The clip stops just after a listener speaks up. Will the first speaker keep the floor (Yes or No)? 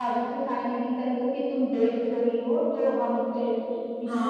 No